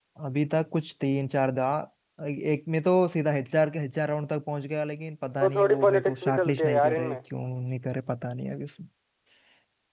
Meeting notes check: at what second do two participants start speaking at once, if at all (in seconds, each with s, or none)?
5.4 s